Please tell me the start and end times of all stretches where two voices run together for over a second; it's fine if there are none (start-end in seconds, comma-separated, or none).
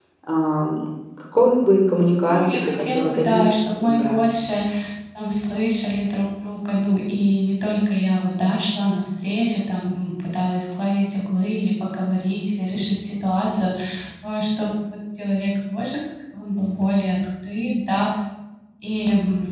2.2-4.2